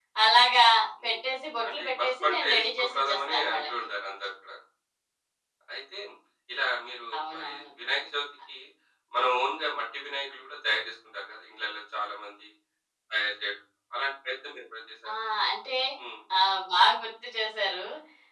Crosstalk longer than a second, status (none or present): present